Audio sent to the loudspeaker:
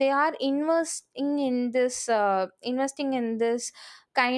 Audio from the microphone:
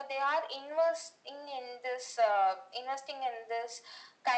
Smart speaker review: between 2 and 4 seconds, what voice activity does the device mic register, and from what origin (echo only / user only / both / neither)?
echo only